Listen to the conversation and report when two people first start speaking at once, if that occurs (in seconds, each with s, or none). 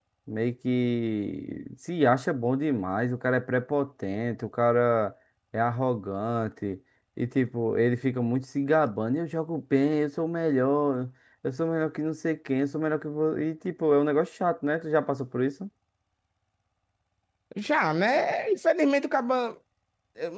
none